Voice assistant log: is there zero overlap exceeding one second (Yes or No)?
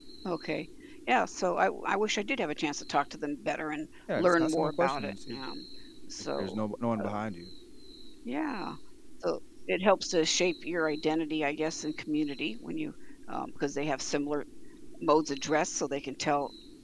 No